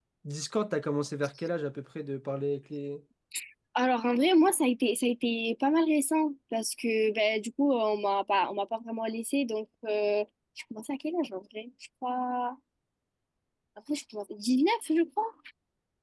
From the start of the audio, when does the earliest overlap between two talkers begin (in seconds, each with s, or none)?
none